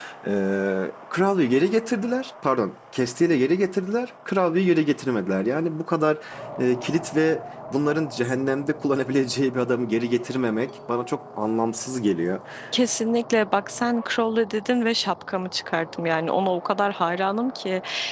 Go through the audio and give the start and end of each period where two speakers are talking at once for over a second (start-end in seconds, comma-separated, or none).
none